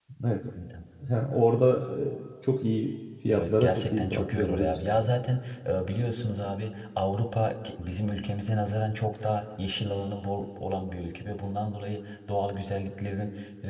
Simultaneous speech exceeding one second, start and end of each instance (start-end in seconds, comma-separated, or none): 3.3-5.0